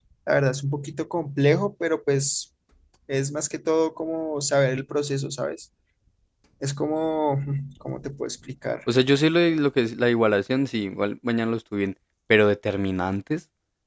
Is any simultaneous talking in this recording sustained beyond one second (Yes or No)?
No